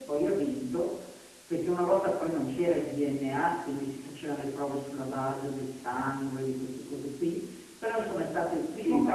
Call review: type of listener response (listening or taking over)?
listening